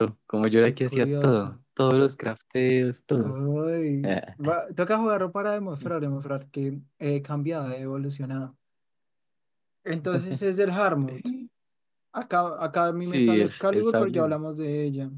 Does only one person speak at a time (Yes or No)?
No